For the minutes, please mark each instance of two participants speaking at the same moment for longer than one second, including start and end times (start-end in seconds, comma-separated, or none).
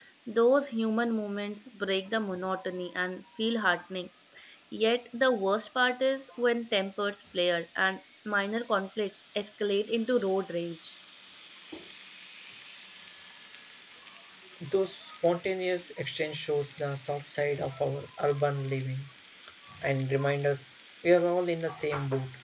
none